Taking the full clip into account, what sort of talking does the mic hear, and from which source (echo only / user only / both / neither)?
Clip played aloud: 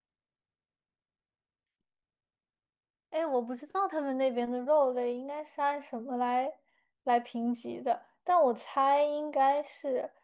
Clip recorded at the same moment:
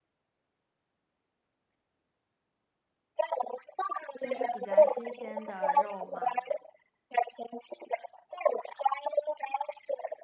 both